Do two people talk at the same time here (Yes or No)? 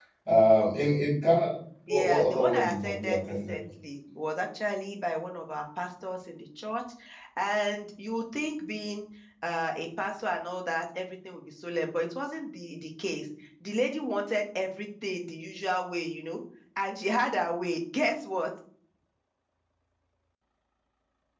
Yes